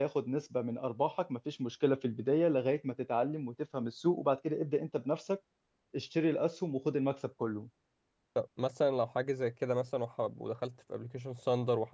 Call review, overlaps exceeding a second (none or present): none